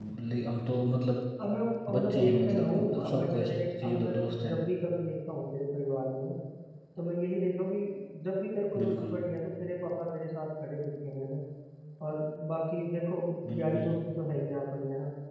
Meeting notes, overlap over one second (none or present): present